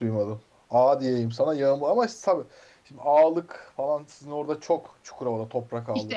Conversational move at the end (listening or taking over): taking over